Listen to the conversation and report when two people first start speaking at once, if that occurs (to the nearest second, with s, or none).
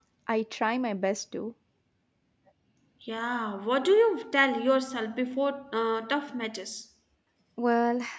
none